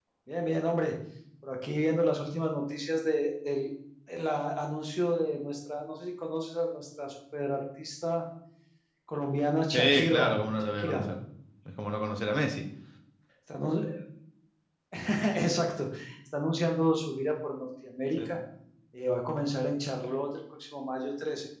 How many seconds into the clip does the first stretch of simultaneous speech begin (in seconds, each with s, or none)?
9.7 s